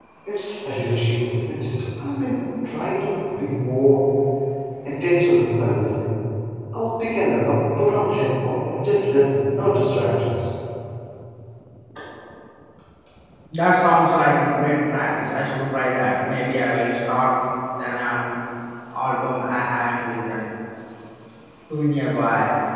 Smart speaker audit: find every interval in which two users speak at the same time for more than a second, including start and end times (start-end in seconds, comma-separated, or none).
none